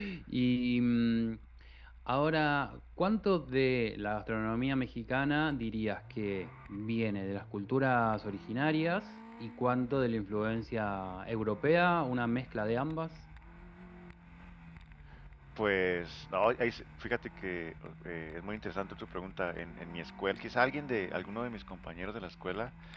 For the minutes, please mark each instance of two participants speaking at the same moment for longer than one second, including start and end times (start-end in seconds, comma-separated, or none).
none